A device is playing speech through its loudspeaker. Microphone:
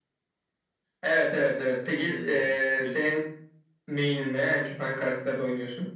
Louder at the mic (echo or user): echo